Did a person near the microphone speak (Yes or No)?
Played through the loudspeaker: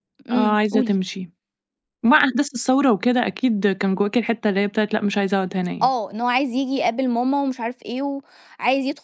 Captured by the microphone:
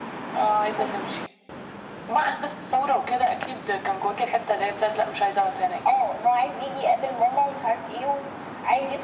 No